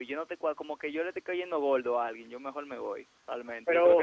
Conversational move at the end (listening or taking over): taking over